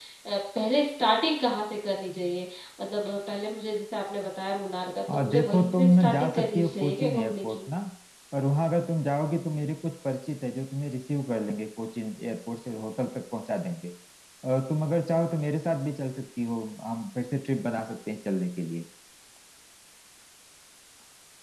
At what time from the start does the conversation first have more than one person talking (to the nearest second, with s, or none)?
5 s